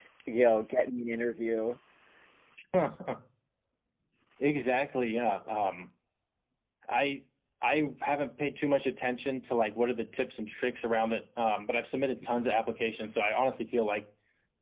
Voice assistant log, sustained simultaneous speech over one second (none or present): none